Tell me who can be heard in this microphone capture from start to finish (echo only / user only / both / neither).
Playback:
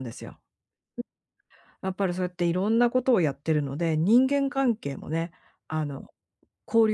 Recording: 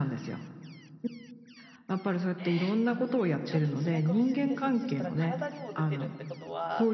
both